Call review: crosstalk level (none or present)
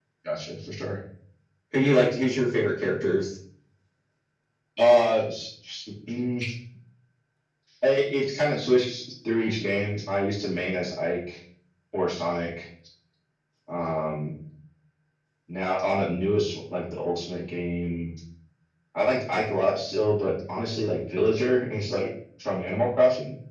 none